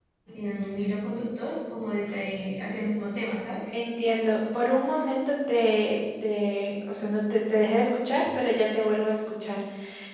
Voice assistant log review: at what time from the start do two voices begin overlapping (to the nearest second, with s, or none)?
none